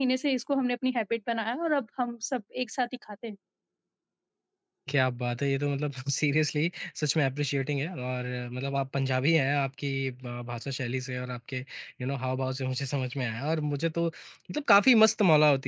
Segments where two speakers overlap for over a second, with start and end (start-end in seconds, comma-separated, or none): none